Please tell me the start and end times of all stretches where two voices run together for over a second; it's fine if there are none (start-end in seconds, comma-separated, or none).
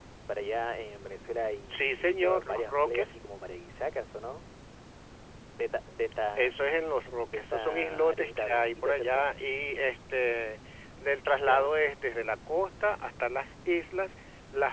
1.7-3.2, 7.2-9.2